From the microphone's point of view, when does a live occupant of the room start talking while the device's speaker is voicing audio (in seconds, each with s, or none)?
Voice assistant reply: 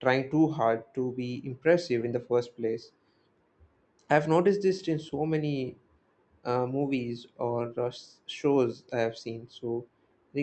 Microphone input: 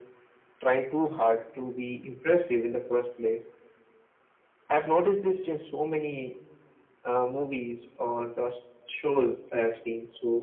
none